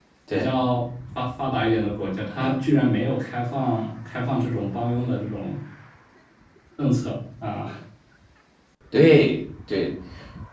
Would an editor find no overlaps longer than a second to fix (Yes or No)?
Yes